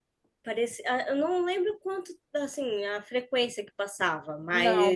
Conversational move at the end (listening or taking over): listening